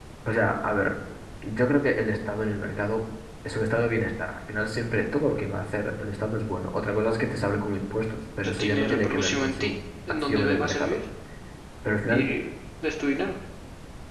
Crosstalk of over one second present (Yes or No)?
Yes